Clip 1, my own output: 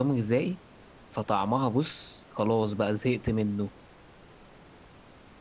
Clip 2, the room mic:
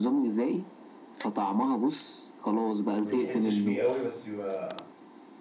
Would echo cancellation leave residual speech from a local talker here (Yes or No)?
Yes